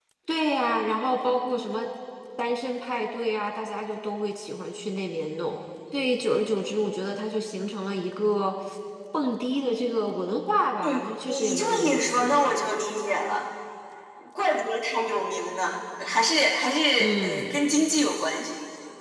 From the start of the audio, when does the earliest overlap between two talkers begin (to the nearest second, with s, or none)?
11 s